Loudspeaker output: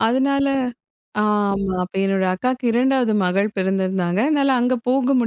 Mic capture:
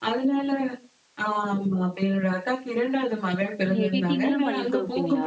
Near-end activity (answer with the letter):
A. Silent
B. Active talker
B